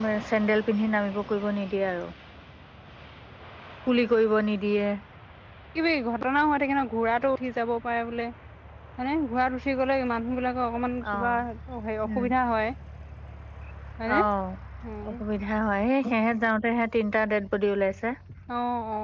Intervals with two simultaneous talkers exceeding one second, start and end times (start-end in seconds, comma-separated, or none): none